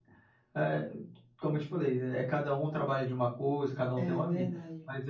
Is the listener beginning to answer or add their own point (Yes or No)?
No